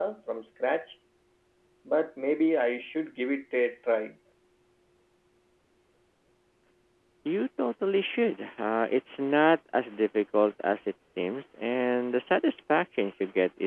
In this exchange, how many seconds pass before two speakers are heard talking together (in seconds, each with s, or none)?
none